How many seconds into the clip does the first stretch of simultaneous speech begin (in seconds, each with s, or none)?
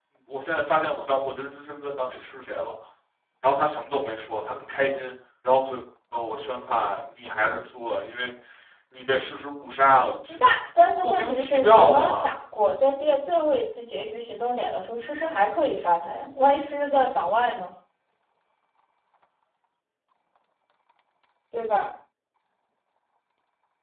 11.0 s